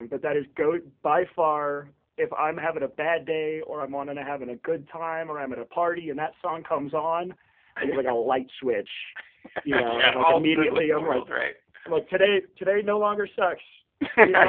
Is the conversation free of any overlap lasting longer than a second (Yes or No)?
No